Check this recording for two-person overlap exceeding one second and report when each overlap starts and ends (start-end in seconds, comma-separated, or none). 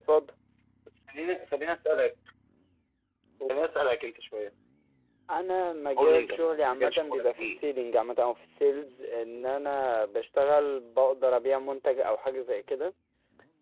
5.9-7.6